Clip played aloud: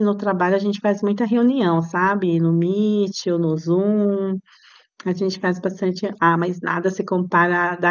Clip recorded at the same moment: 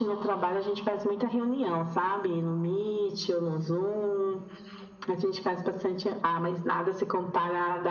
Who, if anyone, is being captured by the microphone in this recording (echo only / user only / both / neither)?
echo only